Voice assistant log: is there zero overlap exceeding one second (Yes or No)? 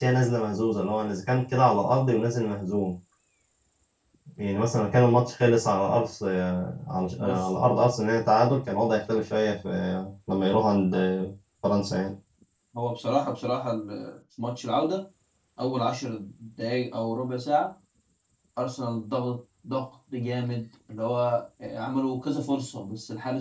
Yes